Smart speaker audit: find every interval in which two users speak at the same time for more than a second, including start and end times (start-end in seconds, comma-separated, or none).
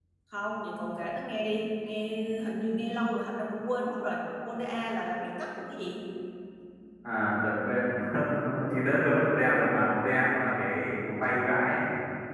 none